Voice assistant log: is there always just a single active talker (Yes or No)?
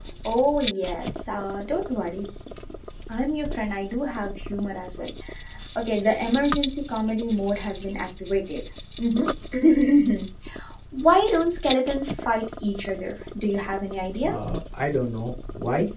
Yes